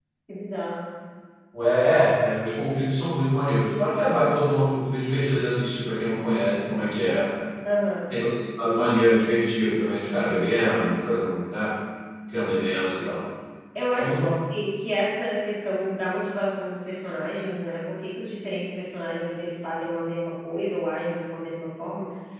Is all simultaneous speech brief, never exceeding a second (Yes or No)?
Yes